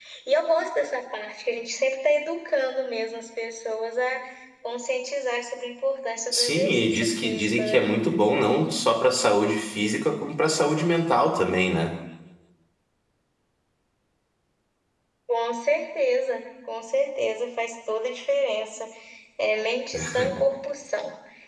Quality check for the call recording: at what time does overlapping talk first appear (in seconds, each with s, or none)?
6.3 s